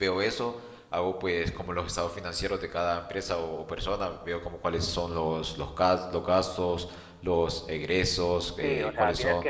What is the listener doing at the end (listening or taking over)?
taking over